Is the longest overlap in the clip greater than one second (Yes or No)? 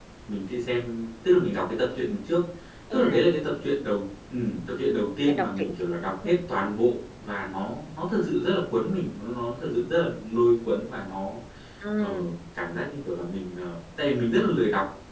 No